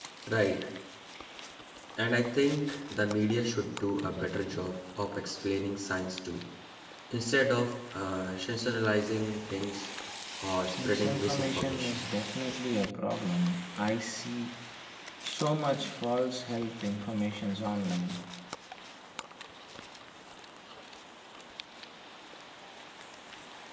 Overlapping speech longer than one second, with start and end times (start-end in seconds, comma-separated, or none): 10.8-12.1